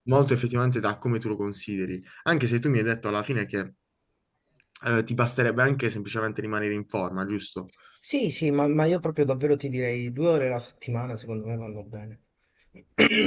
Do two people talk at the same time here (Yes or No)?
No